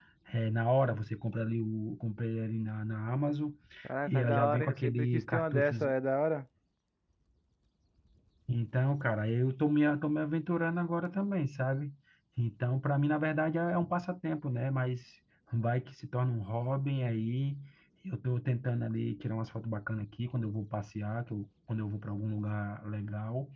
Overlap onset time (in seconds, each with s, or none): 4.1 s